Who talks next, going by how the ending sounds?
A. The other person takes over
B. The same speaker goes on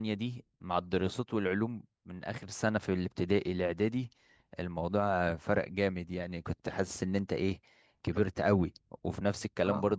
B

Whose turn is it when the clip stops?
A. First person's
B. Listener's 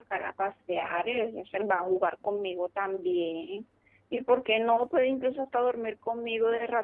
B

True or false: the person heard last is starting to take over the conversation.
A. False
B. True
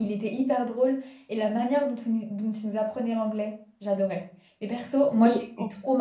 A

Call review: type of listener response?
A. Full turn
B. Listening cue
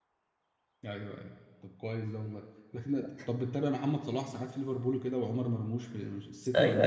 A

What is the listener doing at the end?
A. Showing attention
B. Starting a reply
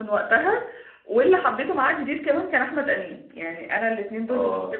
A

